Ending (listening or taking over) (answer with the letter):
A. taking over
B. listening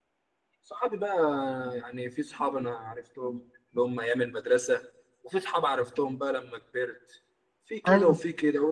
B